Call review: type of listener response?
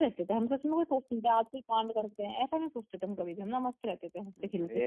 taking over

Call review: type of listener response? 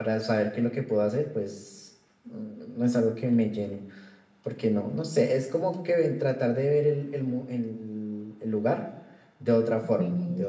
taking over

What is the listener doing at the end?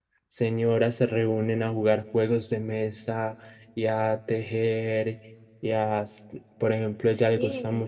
listening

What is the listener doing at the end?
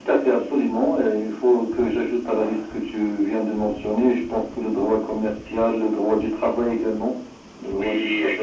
taking over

